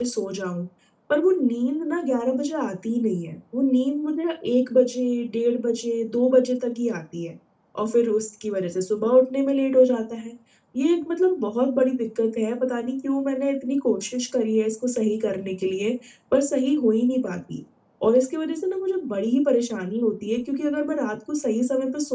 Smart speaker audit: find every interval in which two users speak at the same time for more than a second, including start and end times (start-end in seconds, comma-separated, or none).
none